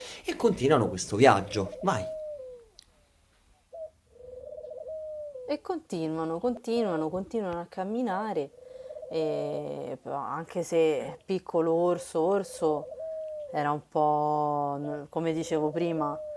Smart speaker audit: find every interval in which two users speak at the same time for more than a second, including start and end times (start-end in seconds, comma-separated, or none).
none